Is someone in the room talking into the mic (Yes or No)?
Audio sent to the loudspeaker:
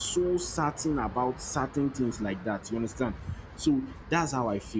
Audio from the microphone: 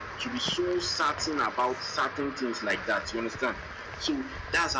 No